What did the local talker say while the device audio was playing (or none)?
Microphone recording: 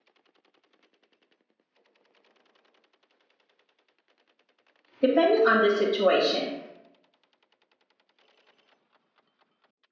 depending on the situation.